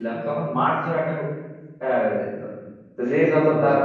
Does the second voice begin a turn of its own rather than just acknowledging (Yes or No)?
No